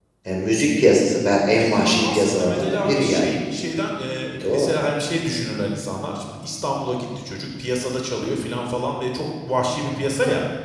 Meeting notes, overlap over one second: present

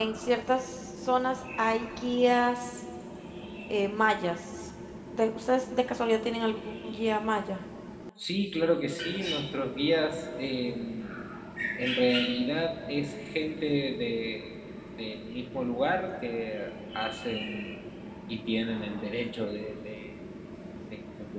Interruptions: none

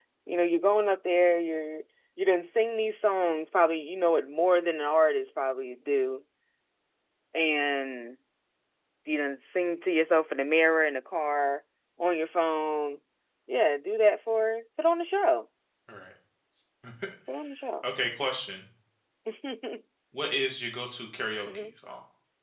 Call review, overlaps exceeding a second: none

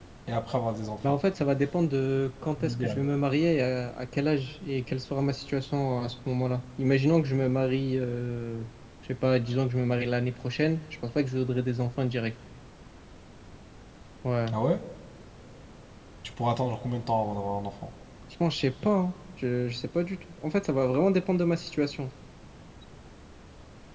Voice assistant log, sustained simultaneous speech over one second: none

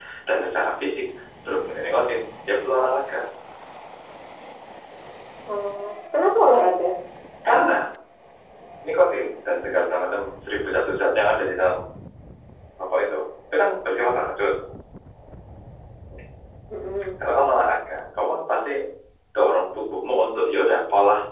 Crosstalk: none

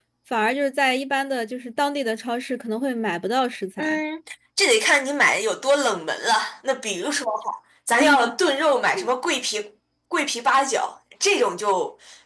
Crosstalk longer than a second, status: none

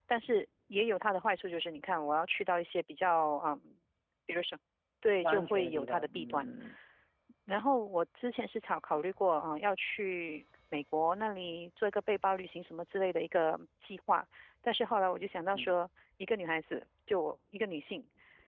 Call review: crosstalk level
present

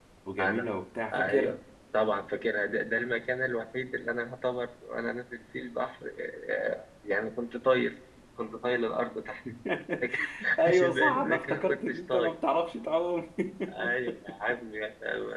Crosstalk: present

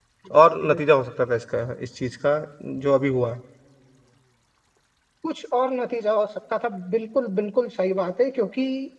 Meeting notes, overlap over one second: none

